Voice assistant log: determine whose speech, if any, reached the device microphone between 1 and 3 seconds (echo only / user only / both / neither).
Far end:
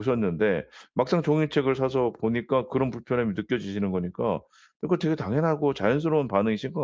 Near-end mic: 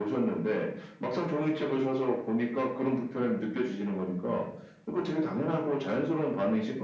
echo only